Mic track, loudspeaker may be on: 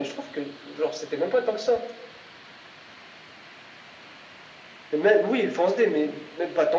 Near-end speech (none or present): none